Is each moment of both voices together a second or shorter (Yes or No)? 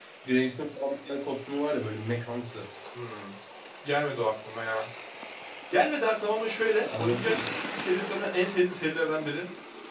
Yes